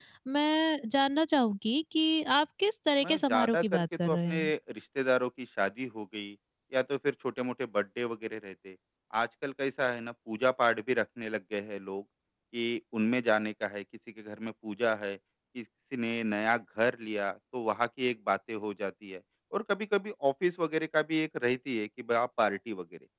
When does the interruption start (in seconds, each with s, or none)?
3.0 s